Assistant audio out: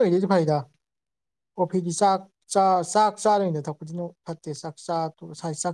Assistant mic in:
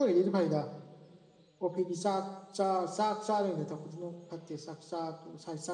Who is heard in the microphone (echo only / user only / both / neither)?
echo only